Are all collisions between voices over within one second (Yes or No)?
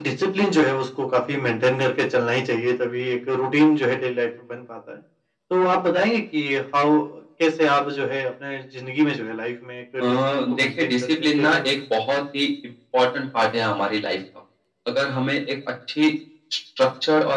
No